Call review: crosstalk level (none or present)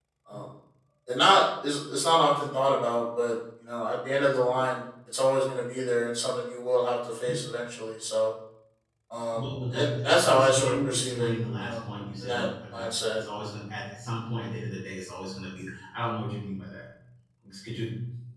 present